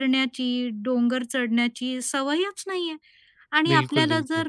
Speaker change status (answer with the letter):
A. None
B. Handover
A